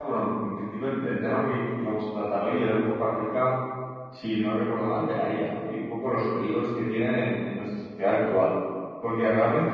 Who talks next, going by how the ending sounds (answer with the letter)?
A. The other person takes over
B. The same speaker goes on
B